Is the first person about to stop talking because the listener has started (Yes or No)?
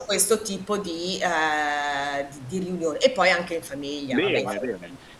Yes